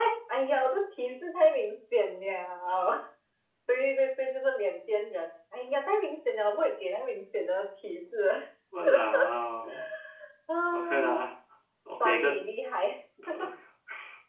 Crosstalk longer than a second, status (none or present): none